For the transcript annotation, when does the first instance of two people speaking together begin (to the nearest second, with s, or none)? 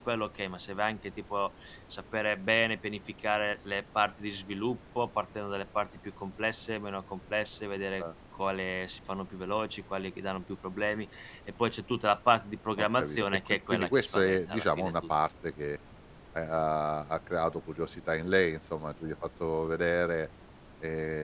13 s